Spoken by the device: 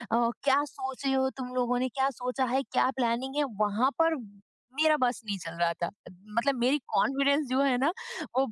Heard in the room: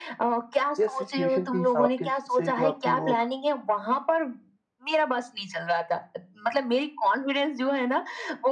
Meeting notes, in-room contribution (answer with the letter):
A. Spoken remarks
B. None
A